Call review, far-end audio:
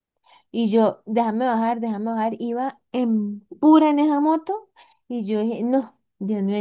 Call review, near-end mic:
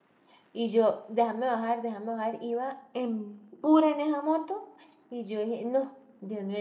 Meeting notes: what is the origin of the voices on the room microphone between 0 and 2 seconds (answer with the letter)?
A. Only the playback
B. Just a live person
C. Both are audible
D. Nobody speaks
A